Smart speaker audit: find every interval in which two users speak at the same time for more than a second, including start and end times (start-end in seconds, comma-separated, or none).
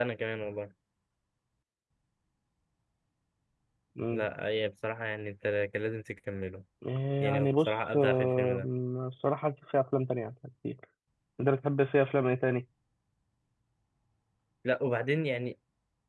7.2-8.7